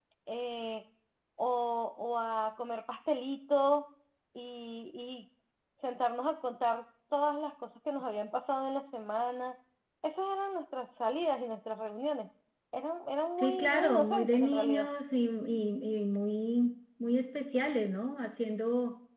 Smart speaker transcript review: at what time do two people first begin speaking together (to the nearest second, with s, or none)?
13 s